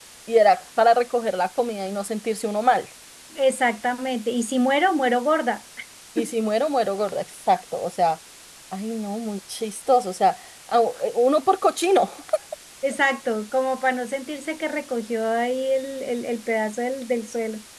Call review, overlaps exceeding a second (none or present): none